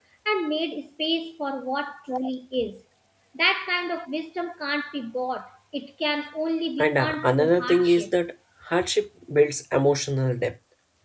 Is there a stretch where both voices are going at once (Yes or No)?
Yes